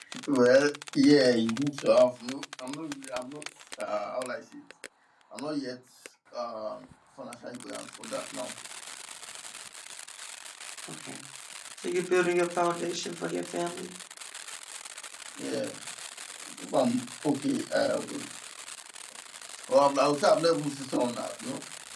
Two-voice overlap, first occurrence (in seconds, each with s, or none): none